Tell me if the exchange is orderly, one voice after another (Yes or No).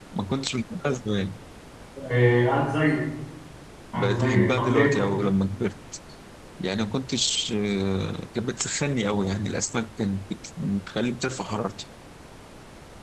No